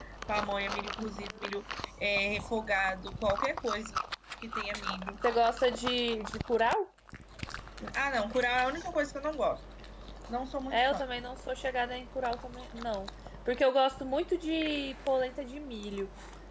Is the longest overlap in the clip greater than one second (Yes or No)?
No